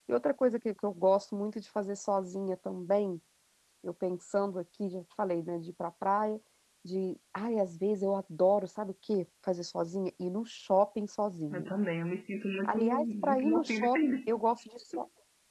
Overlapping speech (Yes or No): Yes